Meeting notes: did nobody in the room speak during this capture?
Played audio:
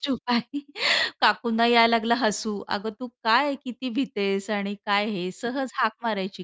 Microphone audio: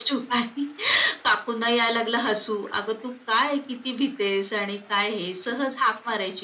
Yes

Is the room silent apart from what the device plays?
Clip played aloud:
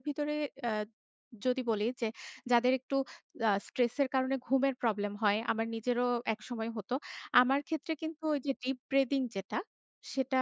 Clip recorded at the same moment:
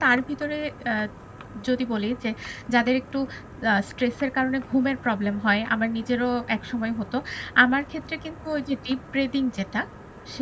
Yes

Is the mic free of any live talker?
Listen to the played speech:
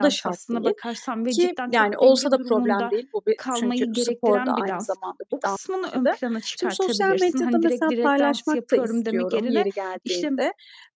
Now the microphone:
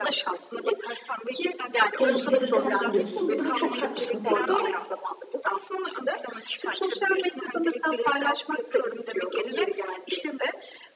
No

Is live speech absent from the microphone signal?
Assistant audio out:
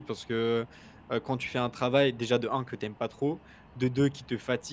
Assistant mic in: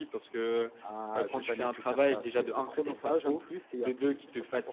No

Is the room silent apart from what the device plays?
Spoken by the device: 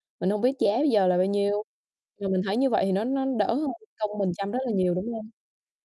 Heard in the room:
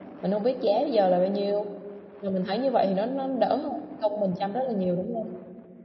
Yes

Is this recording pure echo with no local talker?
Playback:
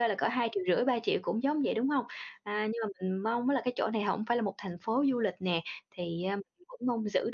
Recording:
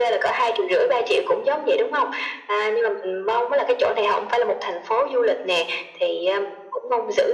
Yes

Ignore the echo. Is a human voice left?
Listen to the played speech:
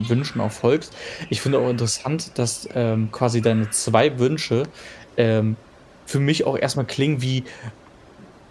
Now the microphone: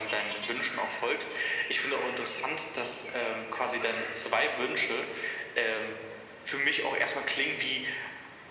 No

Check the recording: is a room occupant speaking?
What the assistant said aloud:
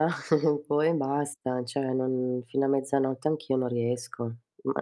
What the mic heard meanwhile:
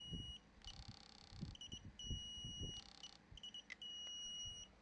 No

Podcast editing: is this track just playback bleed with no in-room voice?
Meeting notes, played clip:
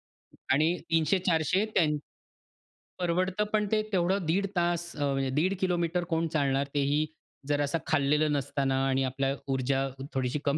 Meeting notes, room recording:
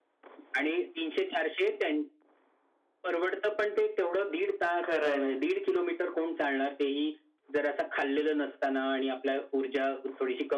No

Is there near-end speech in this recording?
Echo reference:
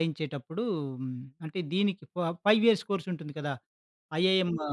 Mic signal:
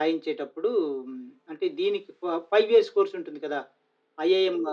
No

